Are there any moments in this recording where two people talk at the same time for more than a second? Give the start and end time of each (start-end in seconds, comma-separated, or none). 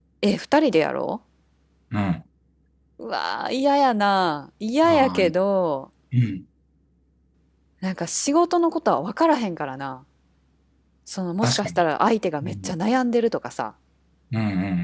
none